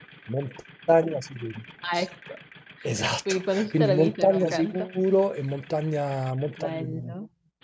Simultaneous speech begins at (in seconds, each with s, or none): 3.3 s